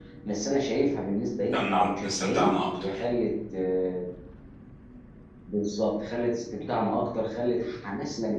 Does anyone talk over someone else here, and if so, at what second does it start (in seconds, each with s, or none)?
1.5 s